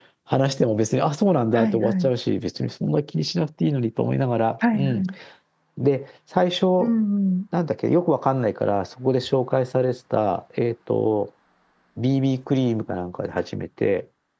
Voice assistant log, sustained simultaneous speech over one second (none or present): none